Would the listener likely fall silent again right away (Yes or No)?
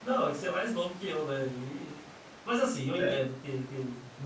Yes